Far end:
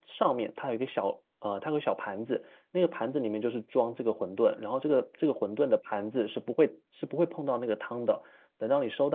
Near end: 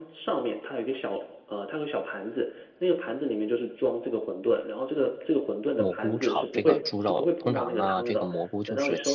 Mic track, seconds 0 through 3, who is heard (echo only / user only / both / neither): echo only